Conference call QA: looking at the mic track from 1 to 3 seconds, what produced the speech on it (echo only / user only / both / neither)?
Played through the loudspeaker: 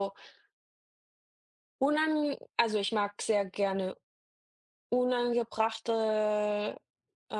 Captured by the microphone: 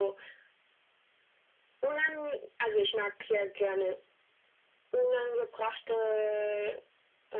echo only